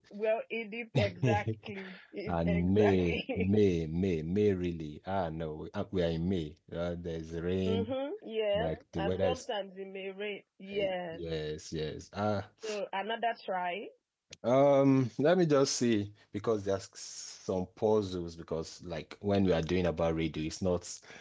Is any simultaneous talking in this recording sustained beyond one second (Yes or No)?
Yes